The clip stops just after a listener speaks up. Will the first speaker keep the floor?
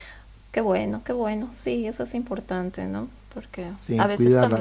Yes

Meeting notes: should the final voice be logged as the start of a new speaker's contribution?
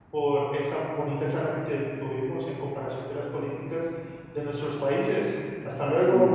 Yes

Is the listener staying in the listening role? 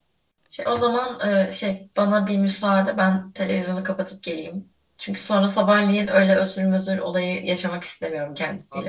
No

